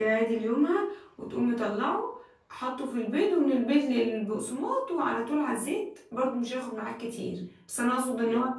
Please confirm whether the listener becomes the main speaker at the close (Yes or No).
No